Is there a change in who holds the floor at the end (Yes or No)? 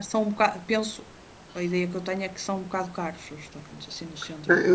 Yes